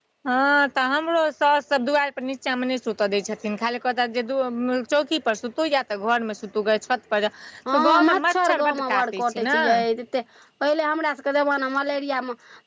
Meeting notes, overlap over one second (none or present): present